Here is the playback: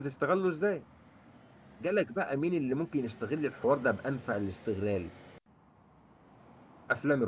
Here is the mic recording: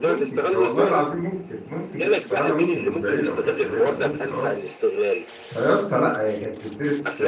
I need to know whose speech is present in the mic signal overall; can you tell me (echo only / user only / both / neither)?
both